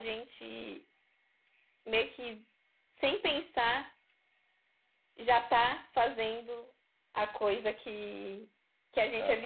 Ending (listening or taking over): listening